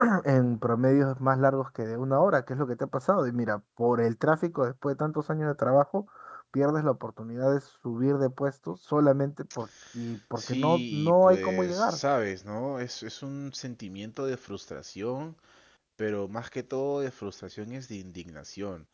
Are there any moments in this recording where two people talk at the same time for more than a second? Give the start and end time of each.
10.4-12.0

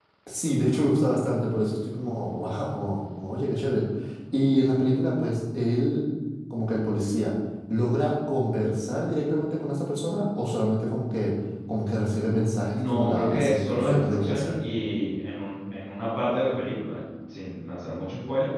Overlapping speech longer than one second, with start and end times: 12.7-14.5

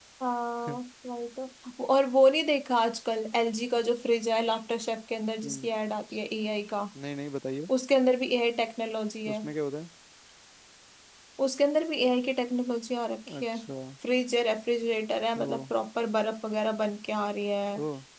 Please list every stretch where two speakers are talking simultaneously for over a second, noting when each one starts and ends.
none

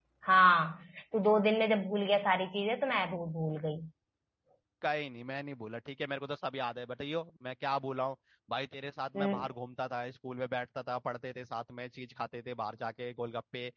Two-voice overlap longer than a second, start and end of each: none

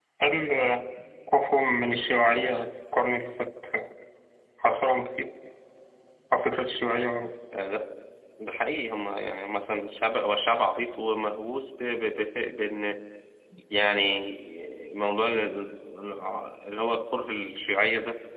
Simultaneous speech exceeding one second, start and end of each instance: none

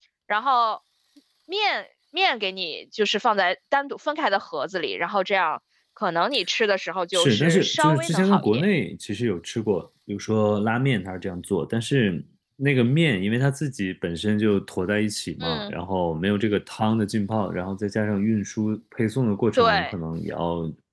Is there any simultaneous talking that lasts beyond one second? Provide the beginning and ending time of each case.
7.1-8.6

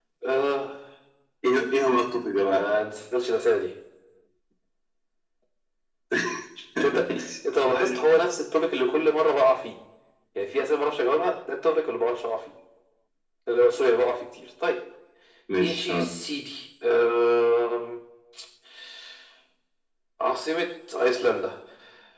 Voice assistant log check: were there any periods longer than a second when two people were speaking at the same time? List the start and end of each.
none

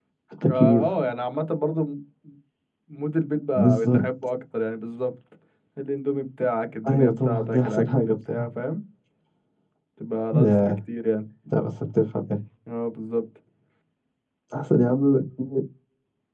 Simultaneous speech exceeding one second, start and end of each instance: 6.9-8.5

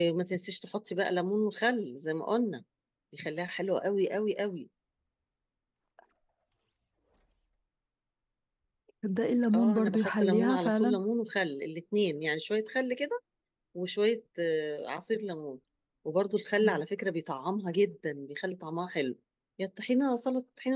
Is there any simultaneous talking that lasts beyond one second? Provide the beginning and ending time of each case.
9.5-11.0

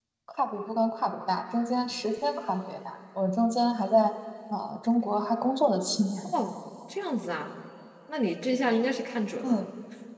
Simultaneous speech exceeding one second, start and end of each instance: none

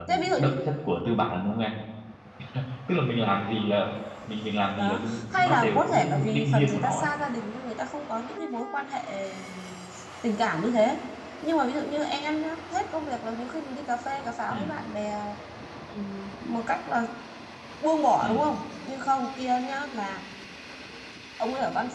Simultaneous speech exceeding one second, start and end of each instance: 4.7-7.1

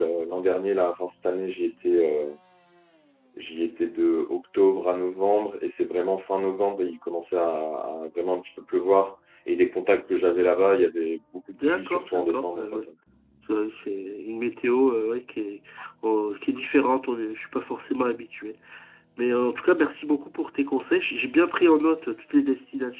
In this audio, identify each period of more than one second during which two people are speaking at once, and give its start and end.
11.6-12.8

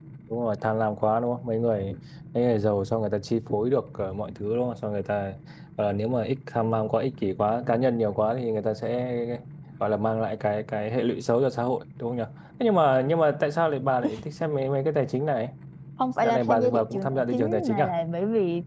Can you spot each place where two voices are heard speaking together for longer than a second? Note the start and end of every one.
16.2-17.9

